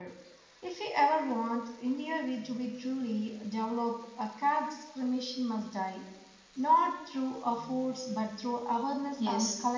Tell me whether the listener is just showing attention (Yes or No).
No